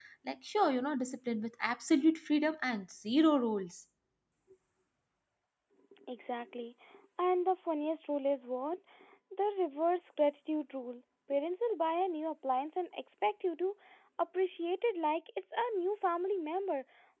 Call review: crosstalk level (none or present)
none